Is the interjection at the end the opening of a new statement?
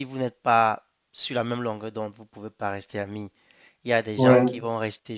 No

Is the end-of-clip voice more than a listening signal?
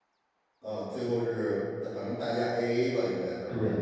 Yes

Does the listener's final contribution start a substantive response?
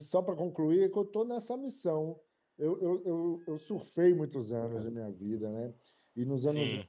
No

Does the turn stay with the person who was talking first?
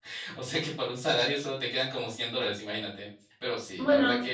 Yes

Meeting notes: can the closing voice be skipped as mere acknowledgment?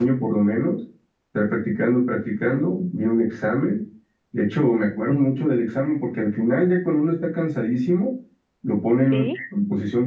Yes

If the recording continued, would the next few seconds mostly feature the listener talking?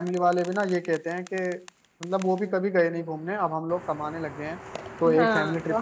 Yes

